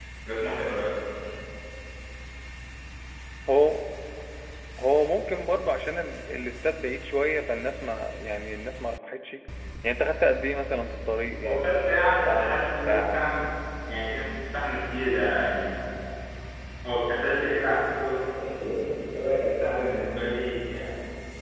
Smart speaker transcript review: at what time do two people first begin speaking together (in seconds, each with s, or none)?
11.4 s